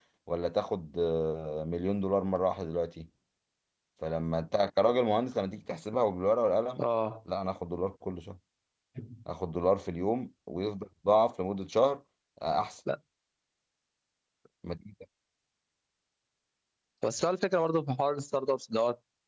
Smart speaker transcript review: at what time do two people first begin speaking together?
none

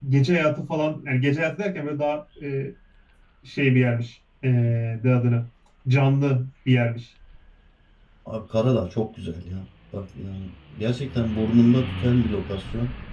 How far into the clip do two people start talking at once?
none

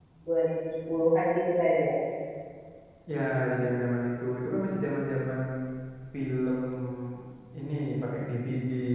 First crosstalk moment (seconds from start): none

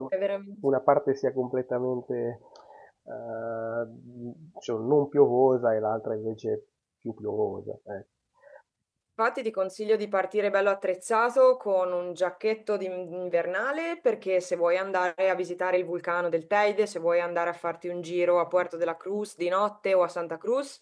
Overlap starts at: none

